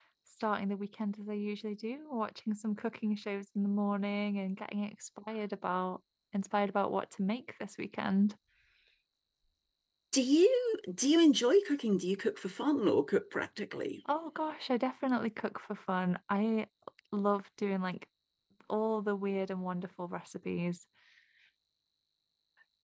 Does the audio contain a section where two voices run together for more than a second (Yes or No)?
No